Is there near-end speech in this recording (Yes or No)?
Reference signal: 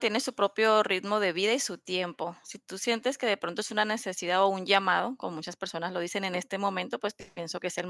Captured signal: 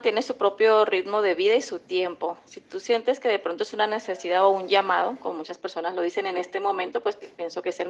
No